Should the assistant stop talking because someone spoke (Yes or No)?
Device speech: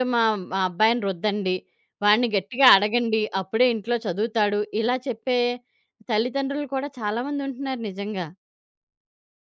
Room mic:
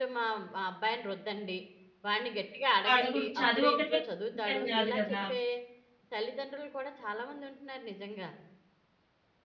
Yes